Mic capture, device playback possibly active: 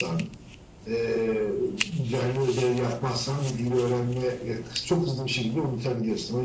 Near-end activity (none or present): none